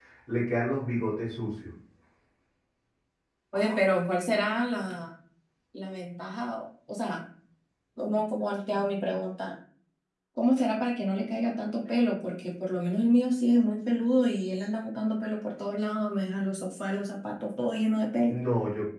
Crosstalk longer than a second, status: none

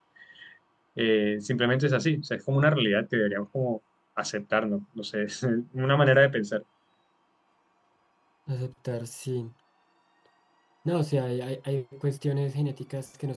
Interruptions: none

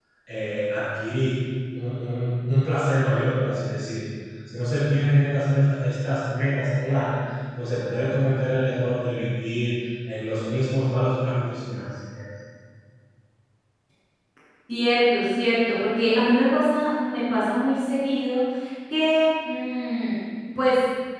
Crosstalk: none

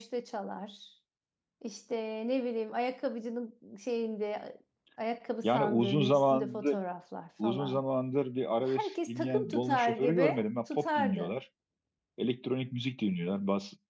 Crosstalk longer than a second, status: present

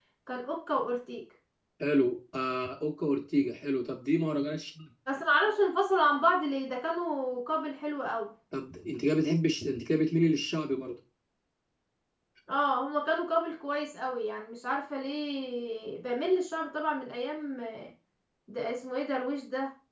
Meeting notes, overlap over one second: none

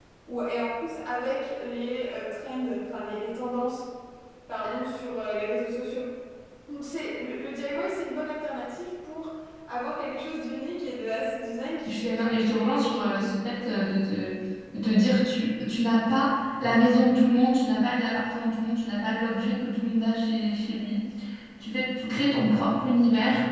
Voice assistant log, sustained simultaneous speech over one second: present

